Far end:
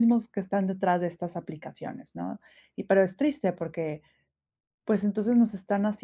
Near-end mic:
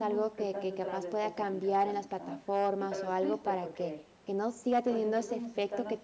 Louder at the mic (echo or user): user